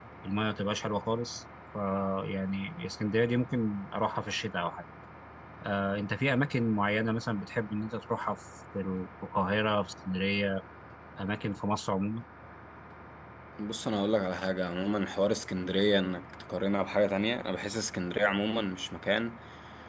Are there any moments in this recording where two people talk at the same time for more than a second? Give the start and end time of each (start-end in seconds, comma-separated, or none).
none